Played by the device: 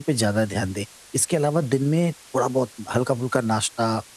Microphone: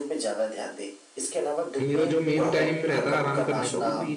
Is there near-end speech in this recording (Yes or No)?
Yes